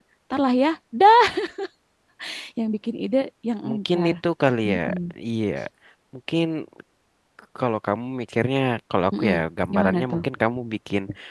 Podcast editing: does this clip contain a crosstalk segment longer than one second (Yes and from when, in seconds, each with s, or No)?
No